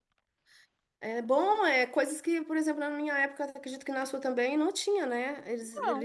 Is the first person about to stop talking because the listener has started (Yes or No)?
No